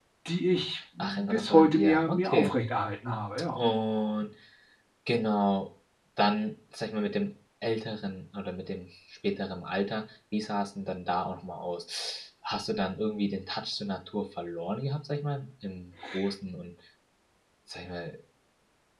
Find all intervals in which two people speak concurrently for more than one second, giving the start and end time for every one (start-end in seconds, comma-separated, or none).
1.0-2.5